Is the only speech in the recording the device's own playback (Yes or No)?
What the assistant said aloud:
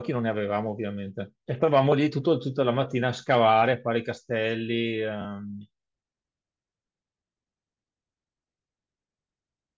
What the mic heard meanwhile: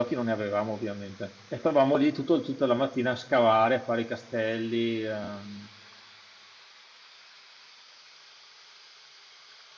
Yes